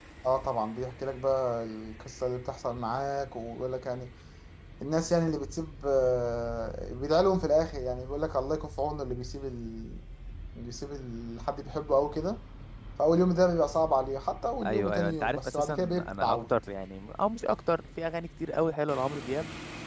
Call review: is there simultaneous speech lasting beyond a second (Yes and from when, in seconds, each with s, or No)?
Yes, from 14.6 s